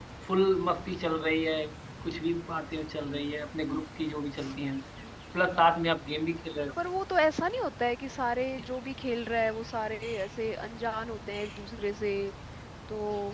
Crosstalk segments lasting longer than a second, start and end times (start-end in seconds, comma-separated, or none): none